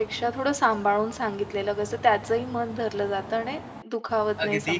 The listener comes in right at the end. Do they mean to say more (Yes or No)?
Yes